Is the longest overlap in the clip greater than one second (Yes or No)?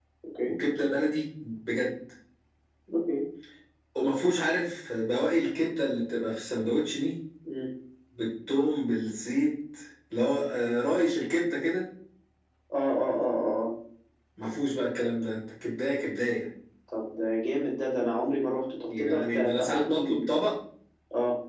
Yes